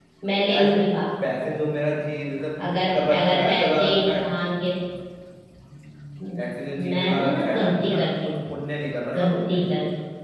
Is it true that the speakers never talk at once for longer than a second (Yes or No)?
No